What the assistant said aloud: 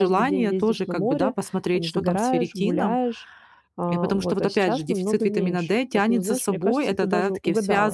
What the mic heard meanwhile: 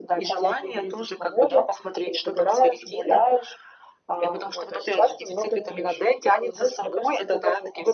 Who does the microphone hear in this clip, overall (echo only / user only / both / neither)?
echo only